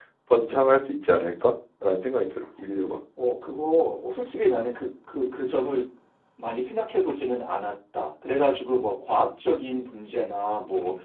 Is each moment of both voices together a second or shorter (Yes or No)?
Yes